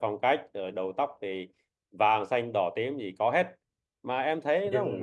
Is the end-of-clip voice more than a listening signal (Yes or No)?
Yes